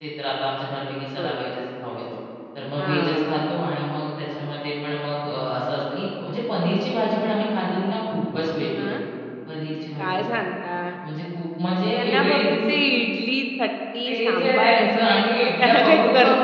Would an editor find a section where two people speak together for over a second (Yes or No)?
Yes